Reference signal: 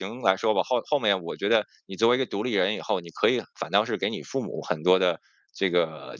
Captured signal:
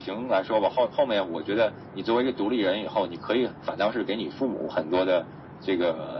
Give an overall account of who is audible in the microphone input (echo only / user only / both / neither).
echo only